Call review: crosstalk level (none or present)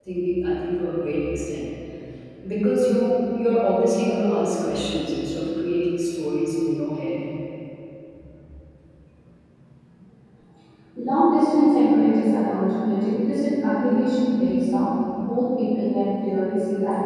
none